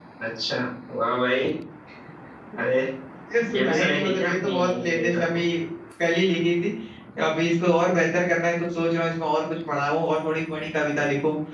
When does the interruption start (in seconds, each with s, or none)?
3.6 s